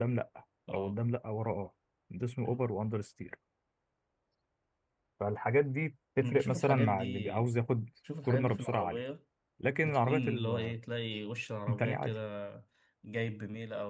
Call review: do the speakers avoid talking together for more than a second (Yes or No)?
No